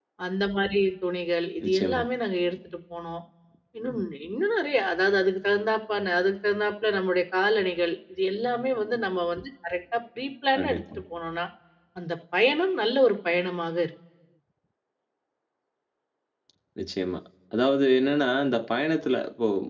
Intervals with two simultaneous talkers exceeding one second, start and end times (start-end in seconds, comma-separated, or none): none